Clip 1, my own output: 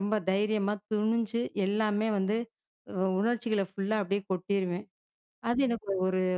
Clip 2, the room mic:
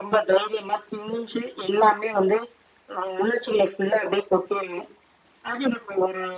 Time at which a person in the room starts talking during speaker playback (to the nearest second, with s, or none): none